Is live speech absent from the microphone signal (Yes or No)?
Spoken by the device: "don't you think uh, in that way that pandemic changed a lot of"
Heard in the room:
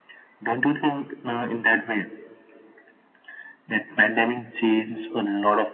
Yes